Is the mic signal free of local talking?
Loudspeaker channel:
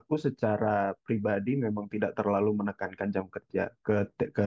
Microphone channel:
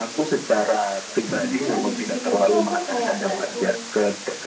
No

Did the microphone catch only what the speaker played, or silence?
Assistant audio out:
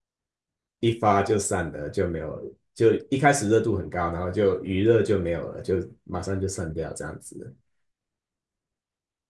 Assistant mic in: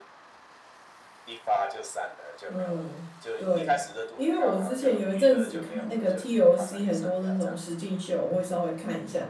No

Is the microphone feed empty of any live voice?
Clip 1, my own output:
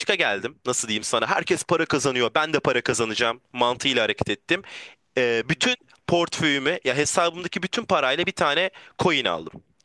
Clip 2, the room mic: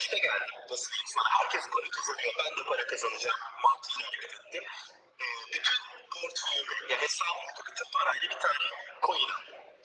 Yes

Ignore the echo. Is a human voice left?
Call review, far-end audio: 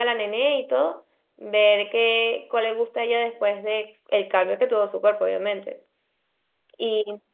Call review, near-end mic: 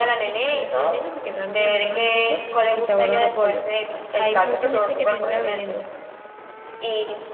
Yes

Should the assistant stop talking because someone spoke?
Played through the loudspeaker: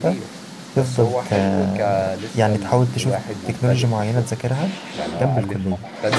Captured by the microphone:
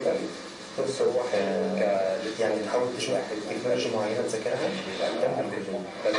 Yes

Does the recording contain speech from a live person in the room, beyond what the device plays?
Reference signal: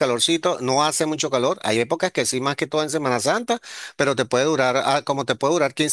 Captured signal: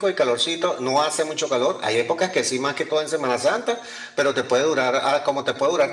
No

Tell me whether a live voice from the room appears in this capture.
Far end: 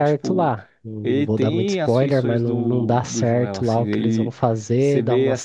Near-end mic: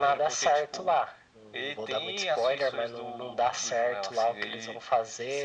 No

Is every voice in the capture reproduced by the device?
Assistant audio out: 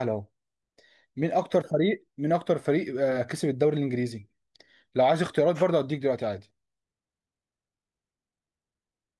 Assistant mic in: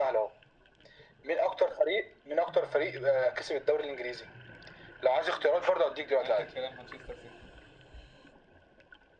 No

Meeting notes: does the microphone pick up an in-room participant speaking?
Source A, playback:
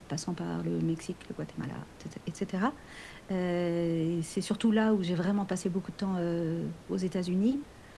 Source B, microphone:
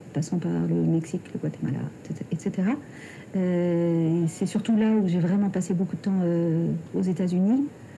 No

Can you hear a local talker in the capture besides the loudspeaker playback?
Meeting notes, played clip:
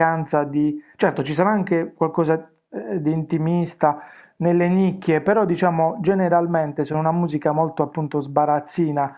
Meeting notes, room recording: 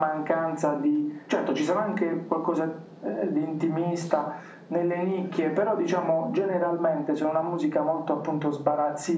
No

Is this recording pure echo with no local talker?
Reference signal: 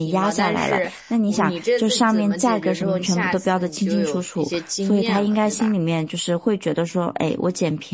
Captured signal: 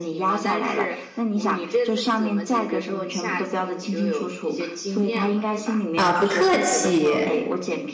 No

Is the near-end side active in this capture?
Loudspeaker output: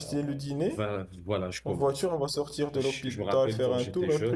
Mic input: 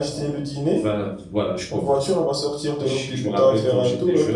No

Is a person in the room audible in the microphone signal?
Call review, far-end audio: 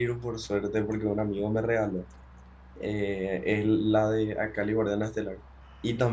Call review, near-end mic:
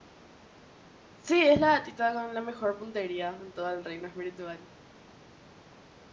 Yes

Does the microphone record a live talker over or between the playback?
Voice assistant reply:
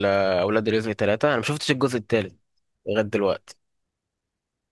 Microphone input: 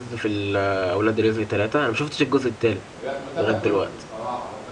Yes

